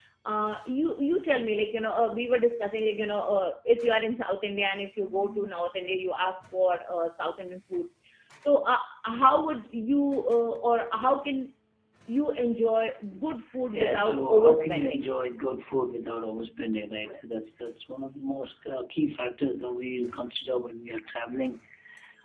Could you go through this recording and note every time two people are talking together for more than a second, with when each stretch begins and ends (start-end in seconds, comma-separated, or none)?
13.7-15.1